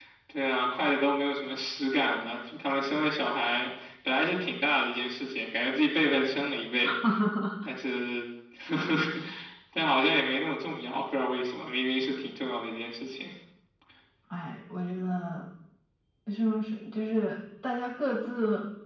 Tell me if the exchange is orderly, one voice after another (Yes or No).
Yes